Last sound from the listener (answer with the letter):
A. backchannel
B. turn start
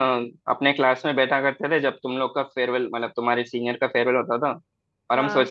A